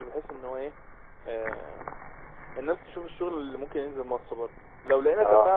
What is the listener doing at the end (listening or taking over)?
listening